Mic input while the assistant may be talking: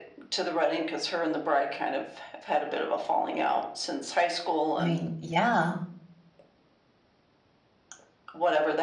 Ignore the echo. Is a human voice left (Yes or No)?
Yes